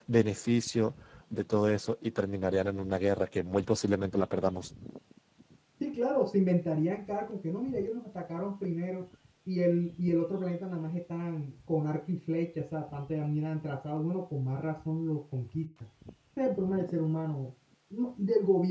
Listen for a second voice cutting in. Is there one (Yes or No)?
No